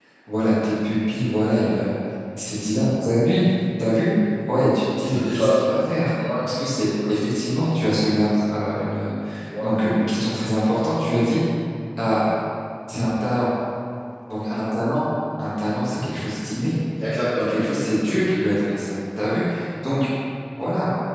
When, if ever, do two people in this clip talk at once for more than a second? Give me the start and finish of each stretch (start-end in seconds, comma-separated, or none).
none